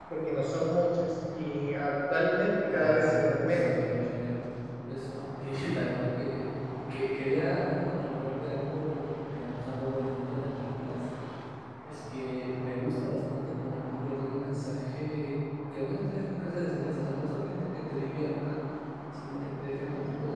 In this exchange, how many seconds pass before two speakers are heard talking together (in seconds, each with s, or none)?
2.6 s